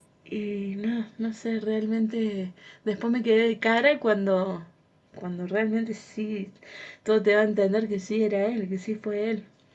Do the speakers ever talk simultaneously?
No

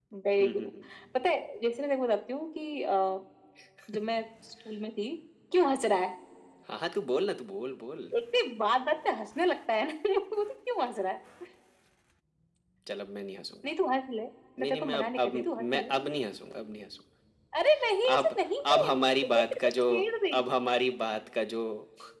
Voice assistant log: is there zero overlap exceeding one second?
No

